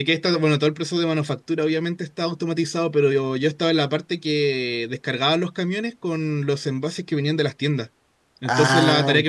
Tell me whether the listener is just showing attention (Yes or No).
Yes